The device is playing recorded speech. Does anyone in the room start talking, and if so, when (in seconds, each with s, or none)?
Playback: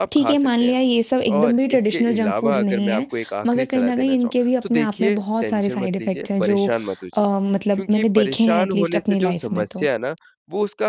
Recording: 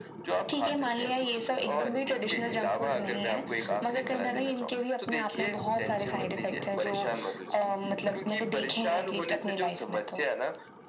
none